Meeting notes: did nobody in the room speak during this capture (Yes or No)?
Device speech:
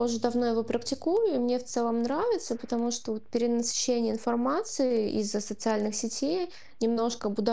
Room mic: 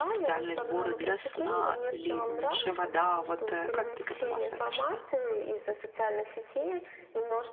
No